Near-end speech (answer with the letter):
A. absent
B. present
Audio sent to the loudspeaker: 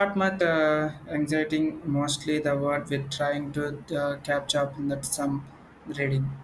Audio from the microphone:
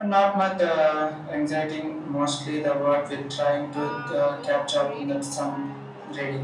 B